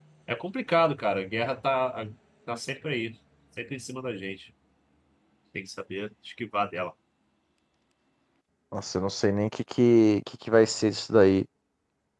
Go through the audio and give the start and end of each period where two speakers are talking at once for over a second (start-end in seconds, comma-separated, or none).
none